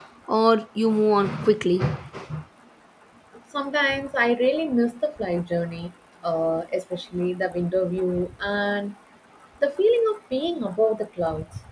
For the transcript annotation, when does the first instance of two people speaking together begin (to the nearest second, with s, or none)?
none